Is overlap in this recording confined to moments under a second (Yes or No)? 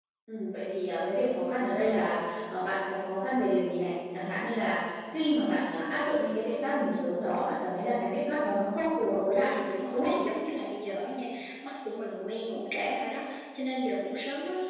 Yes